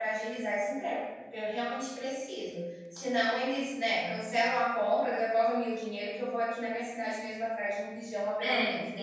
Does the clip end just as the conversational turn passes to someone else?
Yes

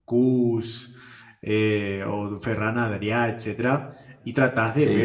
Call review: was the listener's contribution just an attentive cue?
Yes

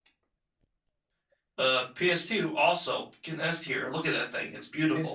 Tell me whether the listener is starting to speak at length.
Yes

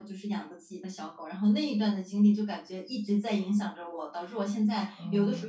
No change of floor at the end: Yes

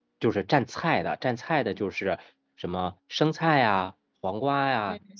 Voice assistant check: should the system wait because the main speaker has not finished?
Yes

